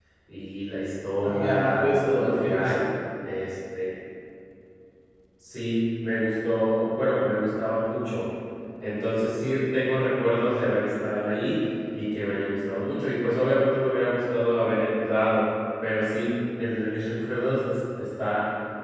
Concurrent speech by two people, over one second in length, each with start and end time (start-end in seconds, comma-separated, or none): 1.2-2.6